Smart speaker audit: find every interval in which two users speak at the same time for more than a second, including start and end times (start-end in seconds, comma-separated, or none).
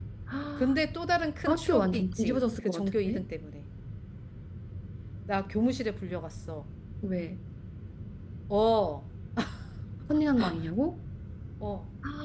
1.5-3.2